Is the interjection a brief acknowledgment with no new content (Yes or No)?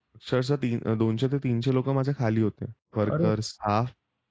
Yes